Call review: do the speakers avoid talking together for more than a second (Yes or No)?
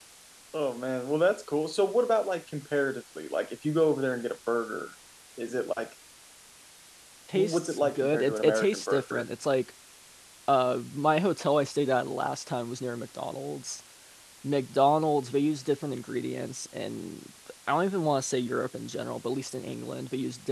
No